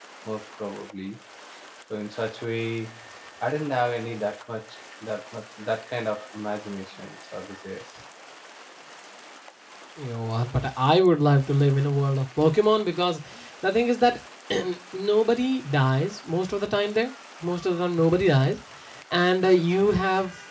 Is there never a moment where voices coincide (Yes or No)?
Yes